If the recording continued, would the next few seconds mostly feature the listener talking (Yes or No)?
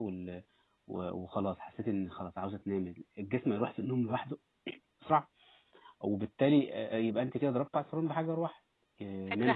Yes